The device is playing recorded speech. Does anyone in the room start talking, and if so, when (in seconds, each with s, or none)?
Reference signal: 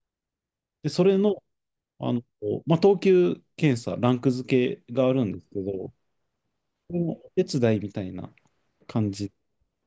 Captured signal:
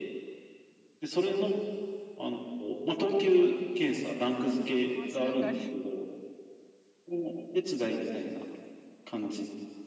4.4 s